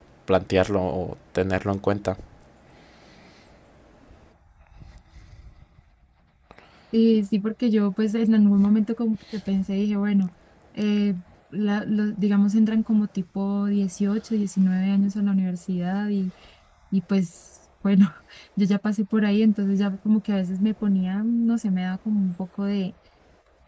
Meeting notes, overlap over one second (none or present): none